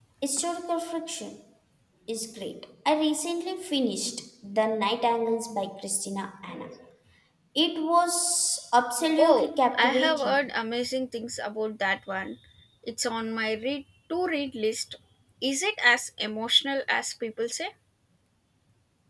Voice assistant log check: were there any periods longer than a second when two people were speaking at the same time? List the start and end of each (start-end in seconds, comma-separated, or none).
9.2-10.4